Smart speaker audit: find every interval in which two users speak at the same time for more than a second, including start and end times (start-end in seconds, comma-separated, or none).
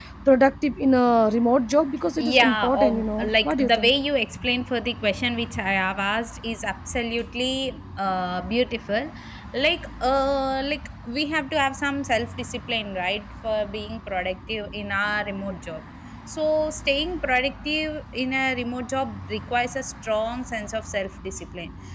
2.2-3.9